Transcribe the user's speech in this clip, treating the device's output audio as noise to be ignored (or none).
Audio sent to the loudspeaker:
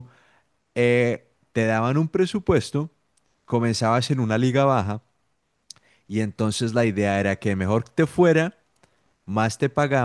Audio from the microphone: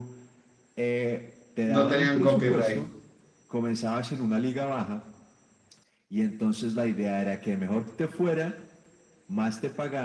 No tenían copyright.